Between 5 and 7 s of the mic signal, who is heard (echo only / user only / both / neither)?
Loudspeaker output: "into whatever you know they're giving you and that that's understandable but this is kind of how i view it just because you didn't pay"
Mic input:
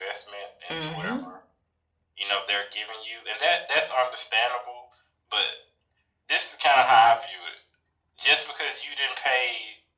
echo only